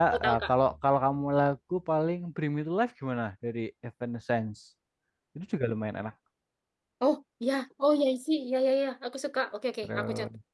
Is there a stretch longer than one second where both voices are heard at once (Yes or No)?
No